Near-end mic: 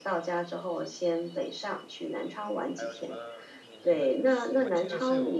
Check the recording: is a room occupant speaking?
Yes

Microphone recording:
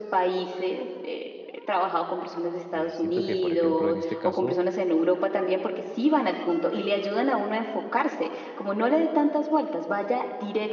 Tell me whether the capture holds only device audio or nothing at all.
No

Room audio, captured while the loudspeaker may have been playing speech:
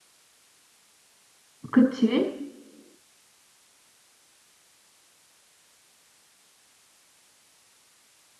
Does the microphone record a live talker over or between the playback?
Yes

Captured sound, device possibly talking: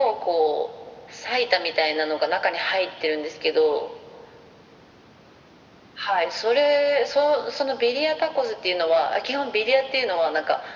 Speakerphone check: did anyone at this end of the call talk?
No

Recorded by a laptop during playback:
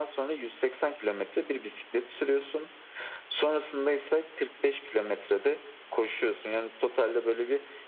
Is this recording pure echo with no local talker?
Yes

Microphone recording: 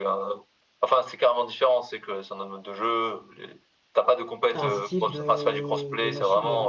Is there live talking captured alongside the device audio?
Yes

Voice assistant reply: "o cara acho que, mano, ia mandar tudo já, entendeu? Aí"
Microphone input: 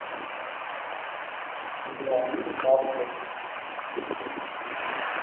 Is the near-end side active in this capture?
Yes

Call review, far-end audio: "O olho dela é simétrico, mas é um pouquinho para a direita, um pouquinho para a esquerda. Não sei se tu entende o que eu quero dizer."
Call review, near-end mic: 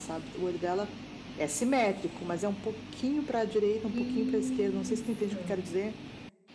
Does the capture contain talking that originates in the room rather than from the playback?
Yes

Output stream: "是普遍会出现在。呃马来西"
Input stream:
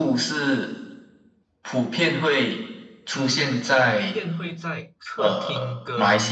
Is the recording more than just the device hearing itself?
Yes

